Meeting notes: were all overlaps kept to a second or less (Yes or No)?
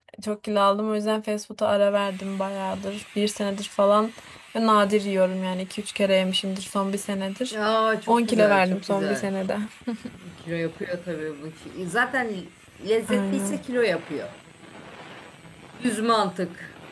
No